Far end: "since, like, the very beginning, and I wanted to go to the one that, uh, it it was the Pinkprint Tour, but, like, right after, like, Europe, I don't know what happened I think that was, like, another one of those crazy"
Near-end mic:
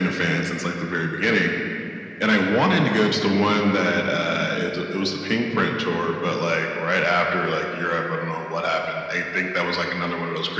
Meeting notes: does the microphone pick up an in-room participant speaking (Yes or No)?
No